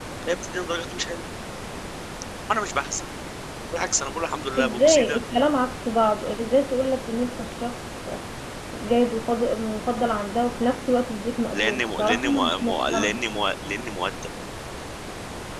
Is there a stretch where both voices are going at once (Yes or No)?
Yes